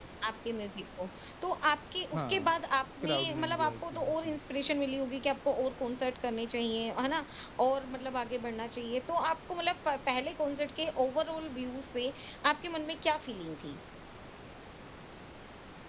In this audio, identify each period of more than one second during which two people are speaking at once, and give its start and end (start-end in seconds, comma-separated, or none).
3.0-4.3